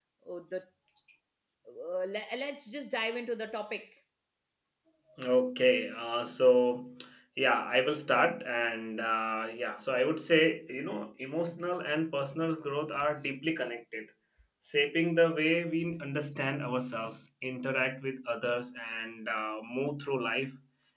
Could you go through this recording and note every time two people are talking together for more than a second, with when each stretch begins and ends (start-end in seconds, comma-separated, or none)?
none